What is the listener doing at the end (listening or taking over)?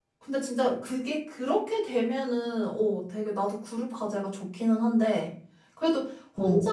listening